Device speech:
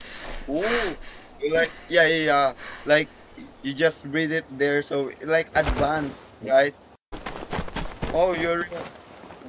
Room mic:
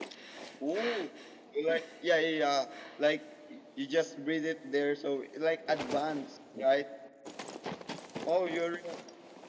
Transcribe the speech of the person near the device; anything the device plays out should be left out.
none

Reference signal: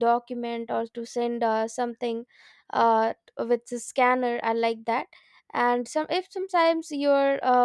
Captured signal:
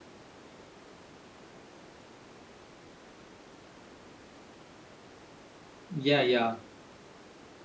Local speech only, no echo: yeah, yeah,

